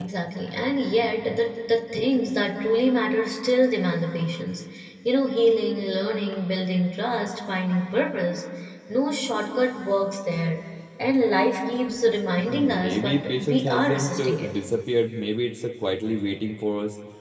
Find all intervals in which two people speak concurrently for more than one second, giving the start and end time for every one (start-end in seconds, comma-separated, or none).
12.4-14.5